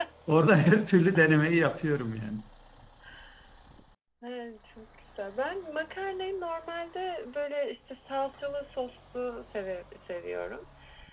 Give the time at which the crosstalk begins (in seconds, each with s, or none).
none